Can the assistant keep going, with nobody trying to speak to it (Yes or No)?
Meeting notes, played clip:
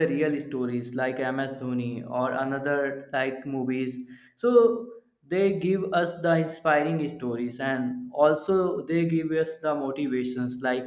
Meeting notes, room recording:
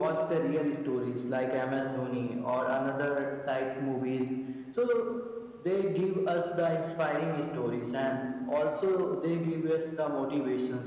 Yes